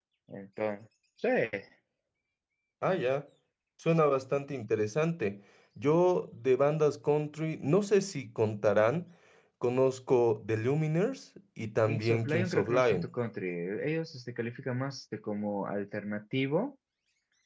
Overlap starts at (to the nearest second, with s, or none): 12 s